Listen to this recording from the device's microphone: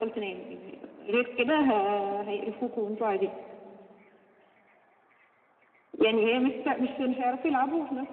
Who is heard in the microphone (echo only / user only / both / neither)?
echo only